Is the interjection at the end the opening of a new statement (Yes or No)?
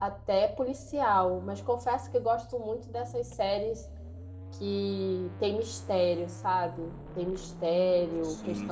No